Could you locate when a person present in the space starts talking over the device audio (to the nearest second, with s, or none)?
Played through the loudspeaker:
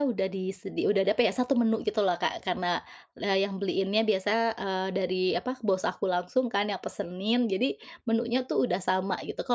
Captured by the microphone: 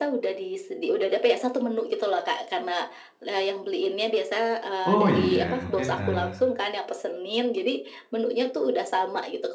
5 s